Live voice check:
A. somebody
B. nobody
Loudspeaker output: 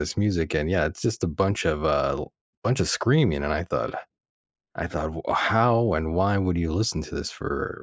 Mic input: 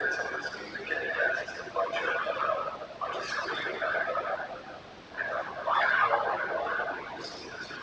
B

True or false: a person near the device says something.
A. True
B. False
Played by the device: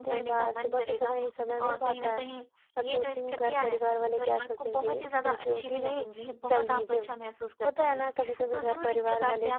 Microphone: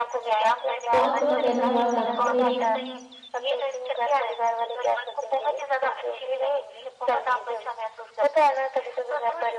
A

